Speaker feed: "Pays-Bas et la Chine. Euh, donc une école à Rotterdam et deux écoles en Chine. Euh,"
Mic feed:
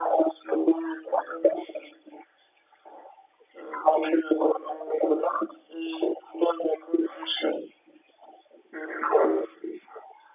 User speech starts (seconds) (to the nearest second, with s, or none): none